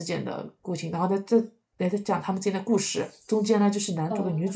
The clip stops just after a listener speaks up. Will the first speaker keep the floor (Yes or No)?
Yes